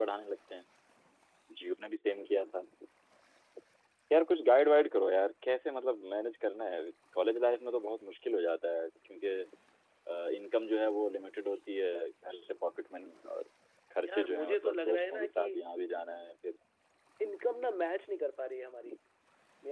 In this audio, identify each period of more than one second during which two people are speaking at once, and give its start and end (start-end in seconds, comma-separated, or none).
14.1-15.5